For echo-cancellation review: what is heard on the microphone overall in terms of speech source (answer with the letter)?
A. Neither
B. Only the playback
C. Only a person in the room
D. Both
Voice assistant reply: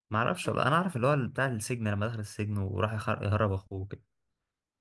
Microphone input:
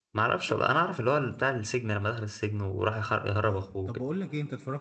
D